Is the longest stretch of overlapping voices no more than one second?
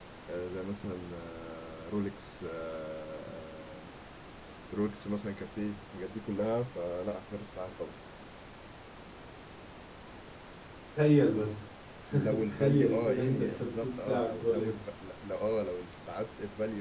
No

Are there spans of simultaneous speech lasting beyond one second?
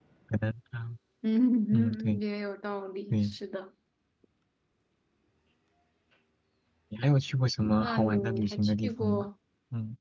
Yes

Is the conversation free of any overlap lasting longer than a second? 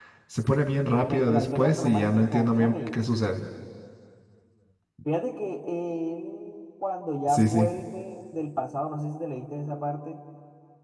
No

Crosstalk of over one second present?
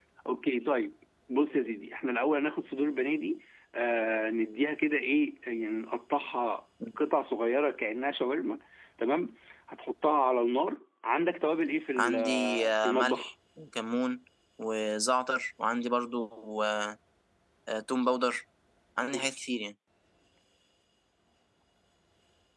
Yes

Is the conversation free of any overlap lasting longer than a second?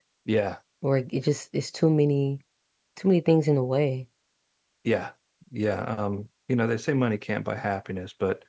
Yes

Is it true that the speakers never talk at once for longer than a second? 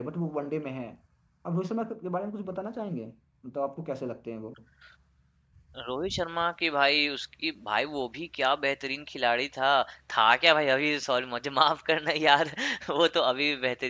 Yes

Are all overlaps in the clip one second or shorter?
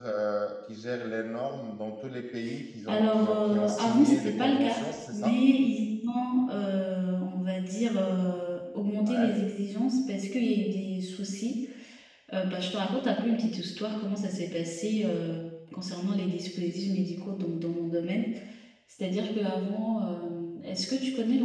No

